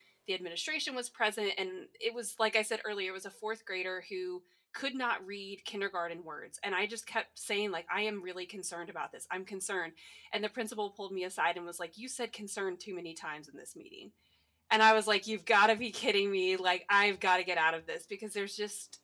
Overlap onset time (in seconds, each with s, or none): none